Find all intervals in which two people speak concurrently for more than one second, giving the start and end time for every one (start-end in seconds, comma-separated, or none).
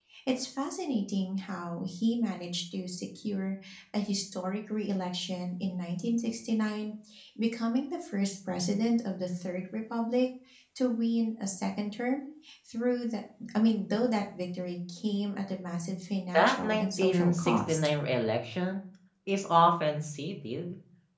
16.3-17.8